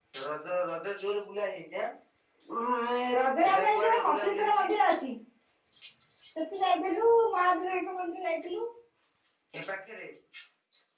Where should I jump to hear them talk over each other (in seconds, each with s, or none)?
3.4 s